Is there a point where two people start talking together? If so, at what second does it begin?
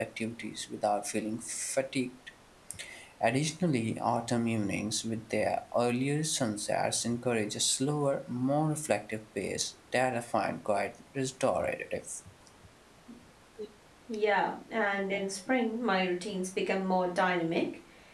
none

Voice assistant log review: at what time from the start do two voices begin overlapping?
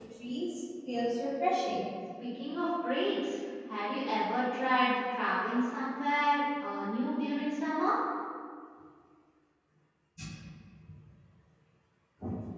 none

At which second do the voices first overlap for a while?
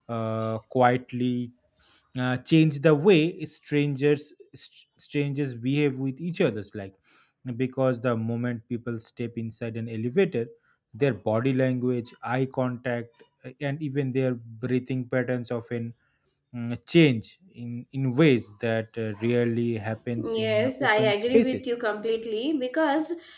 20.2 s

